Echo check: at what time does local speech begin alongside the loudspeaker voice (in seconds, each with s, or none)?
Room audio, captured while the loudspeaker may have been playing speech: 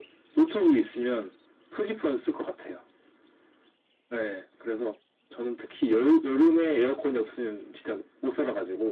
none